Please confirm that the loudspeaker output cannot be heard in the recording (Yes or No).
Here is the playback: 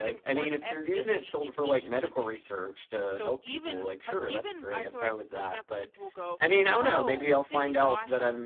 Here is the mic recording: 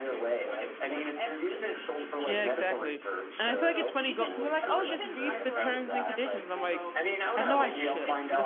No